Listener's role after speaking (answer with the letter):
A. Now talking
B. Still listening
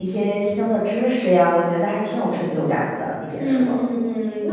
A